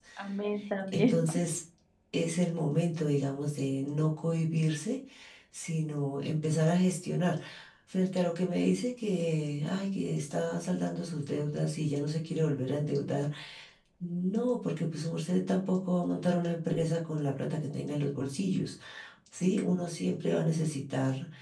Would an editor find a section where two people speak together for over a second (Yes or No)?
No